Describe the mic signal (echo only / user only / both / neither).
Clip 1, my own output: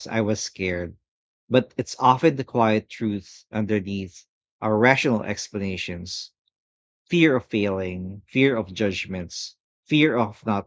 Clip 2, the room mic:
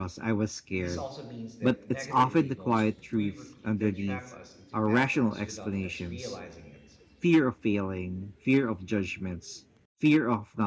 both